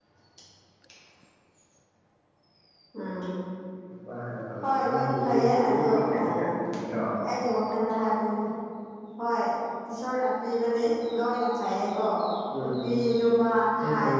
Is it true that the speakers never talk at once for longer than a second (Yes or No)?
No